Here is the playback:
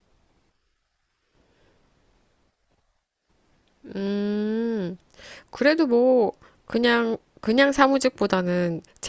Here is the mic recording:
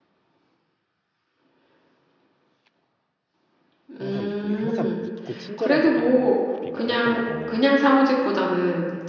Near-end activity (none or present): present